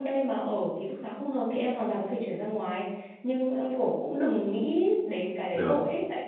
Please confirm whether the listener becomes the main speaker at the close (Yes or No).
No